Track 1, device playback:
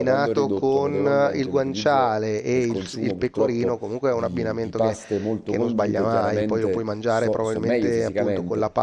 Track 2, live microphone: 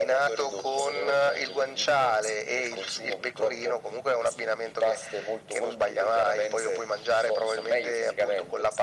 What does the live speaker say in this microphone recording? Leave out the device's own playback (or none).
none